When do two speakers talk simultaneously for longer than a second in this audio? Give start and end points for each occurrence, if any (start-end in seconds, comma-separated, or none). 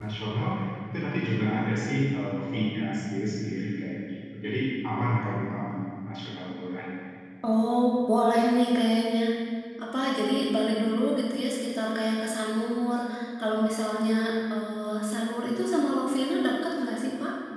none